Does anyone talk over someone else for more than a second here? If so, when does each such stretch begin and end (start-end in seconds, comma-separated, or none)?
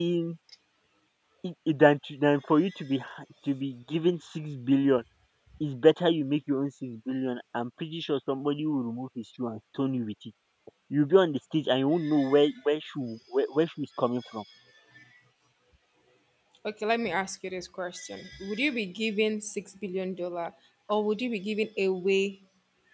none